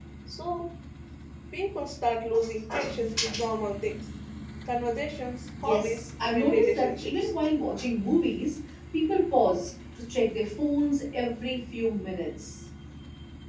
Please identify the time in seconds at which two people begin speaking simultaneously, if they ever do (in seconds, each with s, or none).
5.6 s